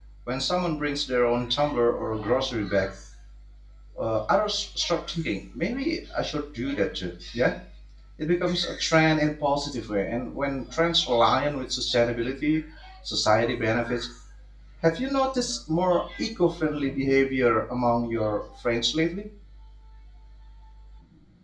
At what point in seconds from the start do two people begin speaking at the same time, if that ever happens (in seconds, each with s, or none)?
none